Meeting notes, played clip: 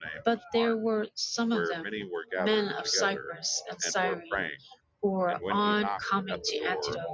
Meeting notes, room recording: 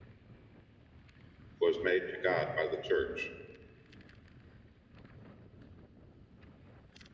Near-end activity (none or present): present